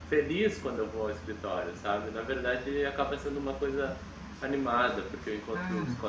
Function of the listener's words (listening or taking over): listening